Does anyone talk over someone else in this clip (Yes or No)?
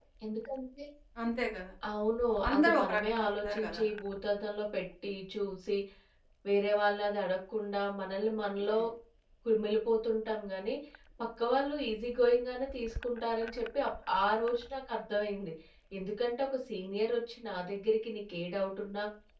Yes